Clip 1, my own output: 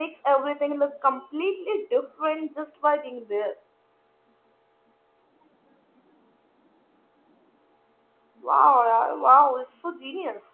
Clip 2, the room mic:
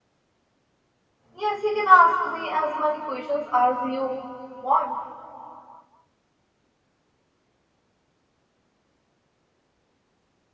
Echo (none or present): none